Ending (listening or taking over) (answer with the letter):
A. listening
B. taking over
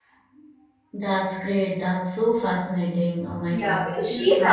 B